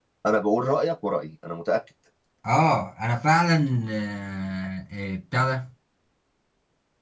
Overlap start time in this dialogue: none

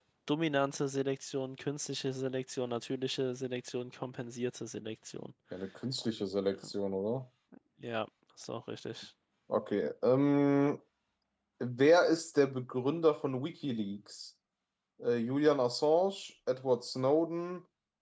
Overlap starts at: none

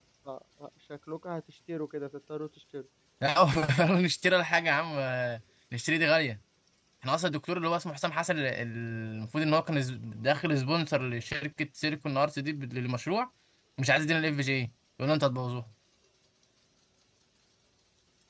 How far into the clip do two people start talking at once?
none

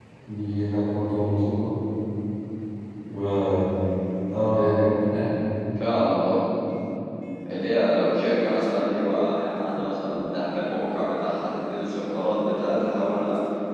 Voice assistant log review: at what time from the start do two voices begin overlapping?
none

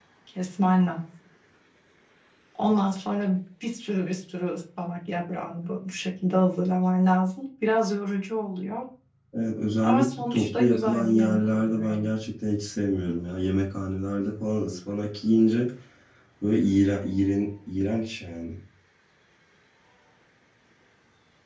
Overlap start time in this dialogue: 9.8 s

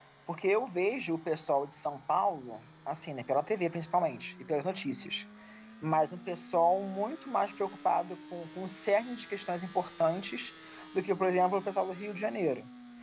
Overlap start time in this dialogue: none

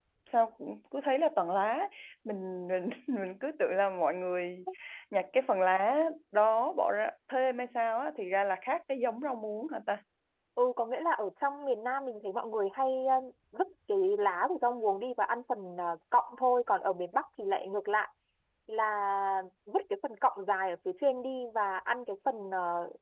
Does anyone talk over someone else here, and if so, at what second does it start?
none

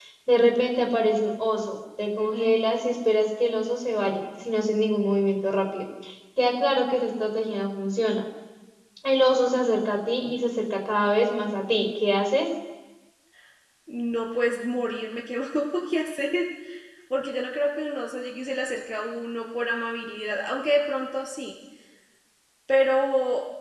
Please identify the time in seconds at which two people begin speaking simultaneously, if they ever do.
none

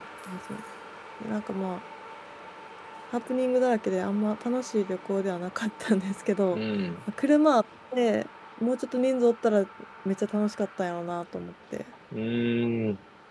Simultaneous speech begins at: none

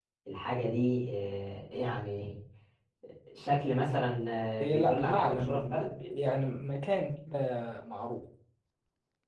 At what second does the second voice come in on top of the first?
4.6 s

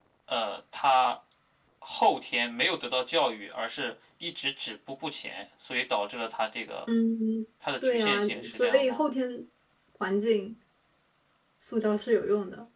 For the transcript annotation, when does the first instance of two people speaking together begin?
7.8 s

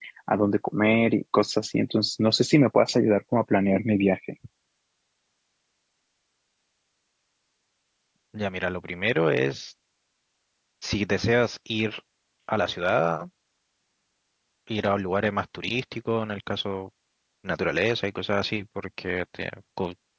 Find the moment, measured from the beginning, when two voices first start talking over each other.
none

